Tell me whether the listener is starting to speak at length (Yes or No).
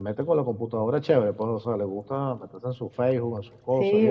Yes